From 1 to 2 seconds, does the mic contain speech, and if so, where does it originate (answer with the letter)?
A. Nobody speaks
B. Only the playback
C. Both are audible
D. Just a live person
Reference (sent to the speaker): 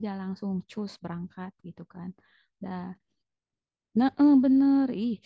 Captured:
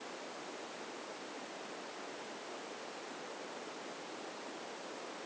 A